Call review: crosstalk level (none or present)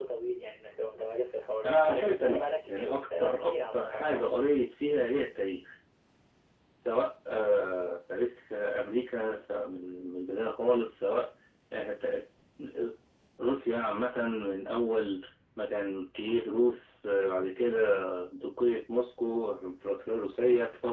present